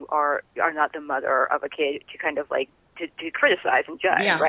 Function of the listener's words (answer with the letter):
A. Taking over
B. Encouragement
A